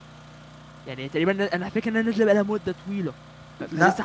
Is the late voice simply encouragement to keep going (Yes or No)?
No